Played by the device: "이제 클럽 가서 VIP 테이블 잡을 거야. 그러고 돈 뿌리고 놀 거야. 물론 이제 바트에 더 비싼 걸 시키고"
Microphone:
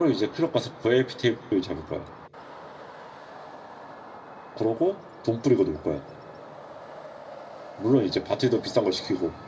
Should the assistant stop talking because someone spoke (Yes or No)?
No